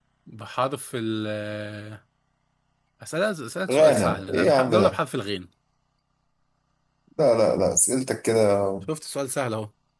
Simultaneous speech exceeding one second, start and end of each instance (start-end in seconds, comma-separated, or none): 3.7-5.0